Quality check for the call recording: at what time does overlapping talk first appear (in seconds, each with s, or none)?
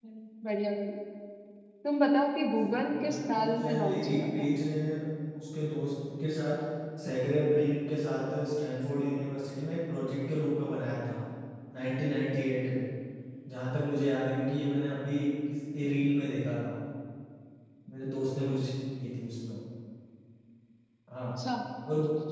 2.6 s